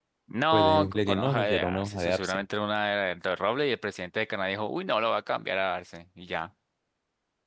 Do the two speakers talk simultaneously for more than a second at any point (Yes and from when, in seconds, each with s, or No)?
Yes, from 0.5 s